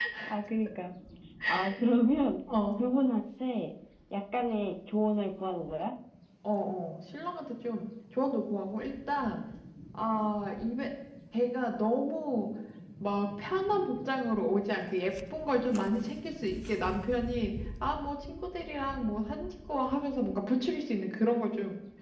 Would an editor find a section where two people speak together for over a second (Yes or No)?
No